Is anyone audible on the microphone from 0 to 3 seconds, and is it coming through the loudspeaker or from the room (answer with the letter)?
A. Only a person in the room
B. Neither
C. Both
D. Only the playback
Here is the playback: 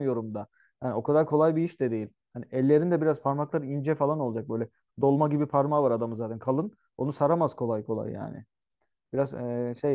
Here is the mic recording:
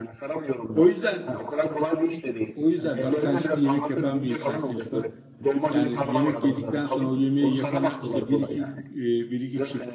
C